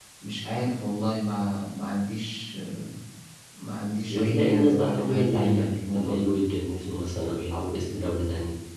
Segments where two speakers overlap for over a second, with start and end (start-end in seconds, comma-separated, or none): 4.1-6.3